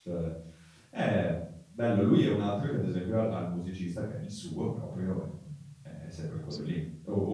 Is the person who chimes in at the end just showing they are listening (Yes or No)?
Yes